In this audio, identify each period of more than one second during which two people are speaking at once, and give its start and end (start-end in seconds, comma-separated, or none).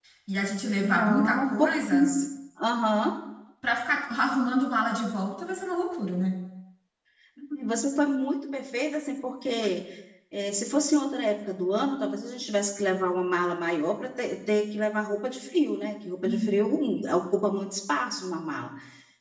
0.8-2.1